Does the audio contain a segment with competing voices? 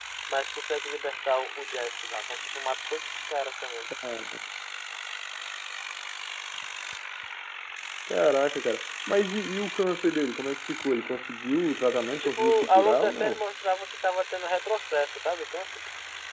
Yes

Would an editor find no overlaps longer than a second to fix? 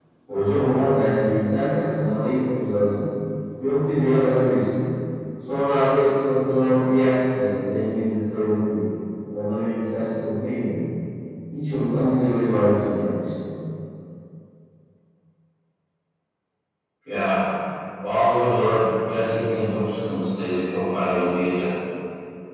Yes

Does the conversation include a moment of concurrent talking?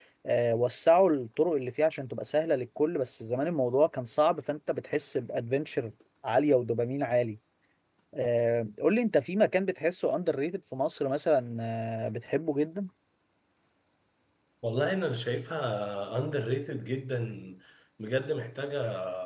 No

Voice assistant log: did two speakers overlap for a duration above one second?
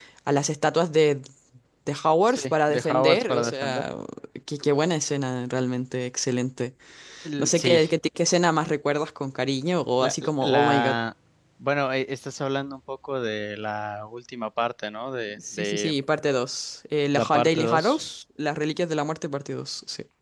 Yes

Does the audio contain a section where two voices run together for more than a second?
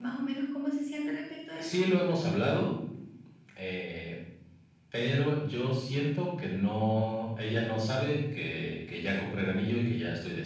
No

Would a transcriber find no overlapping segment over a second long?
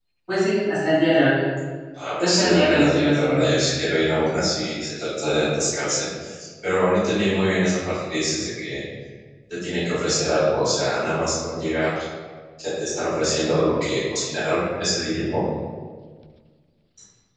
No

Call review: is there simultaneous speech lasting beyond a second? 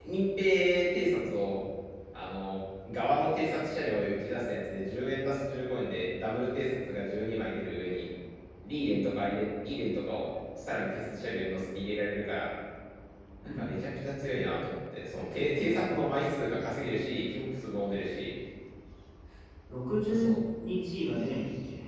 No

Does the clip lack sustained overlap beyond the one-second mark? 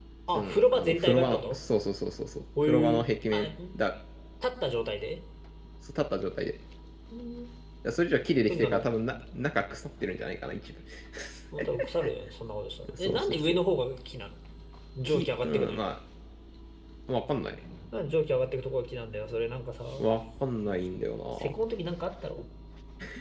No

